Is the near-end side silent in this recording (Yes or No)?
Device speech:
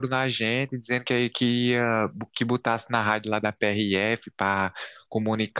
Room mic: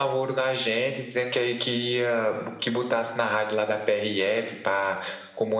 Yes